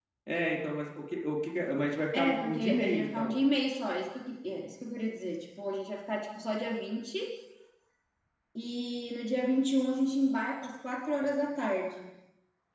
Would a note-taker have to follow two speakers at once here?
Yes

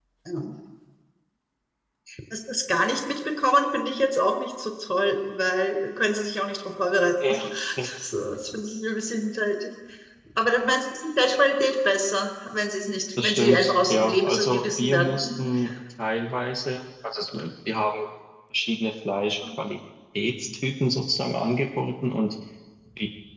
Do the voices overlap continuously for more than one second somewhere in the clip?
Yes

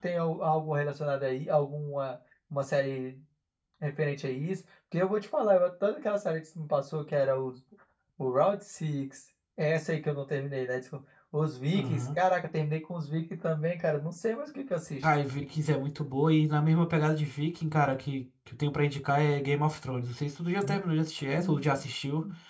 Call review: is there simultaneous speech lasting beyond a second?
No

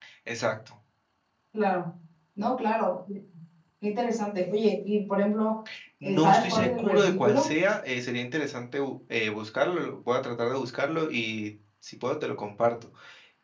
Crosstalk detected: Yes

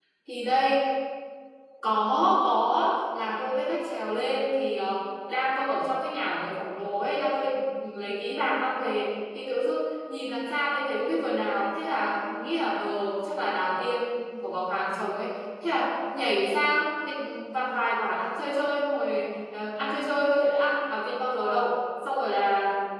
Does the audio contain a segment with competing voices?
No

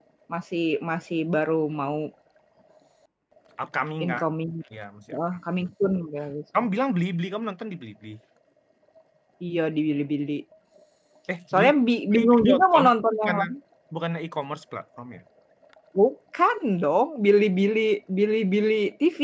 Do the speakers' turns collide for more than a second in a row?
Yes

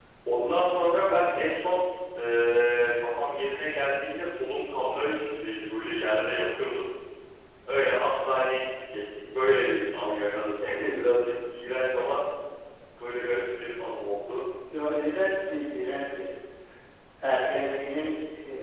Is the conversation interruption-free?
Yes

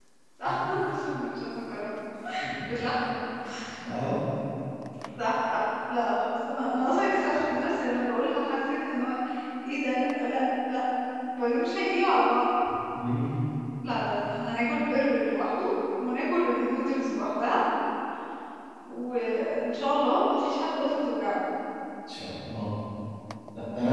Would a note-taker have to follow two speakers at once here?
No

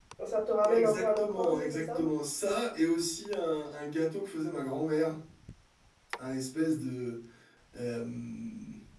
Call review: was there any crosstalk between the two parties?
Yes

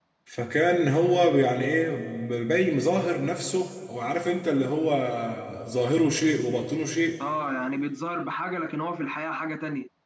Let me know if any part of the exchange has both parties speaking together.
No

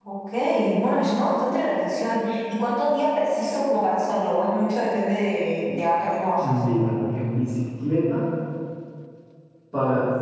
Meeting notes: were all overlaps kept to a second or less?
Yes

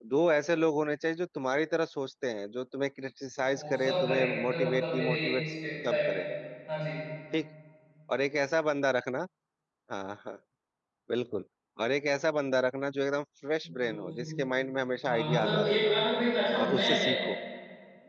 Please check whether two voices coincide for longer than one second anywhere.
Yes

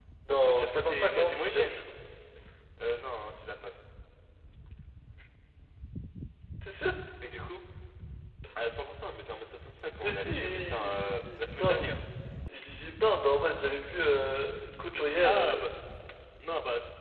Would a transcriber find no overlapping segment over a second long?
No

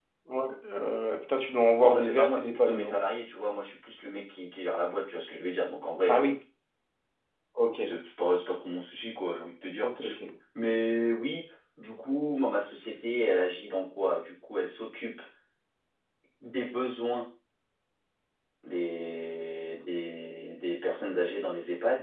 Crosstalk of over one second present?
Yes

